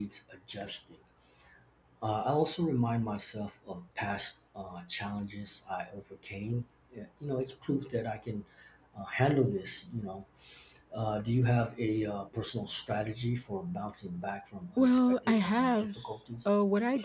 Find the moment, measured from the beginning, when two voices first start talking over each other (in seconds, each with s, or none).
14.8 s